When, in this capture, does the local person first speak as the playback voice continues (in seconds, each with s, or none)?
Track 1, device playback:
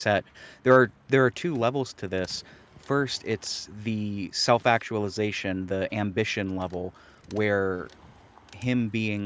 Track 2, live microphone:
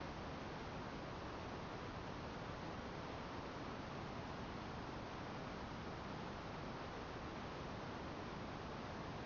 none